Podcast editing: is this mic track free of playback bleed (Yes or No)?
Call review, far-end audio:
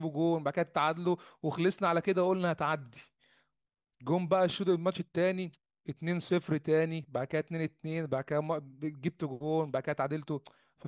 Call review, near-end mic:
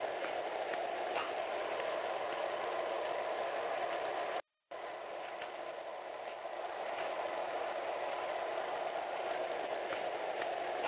Yes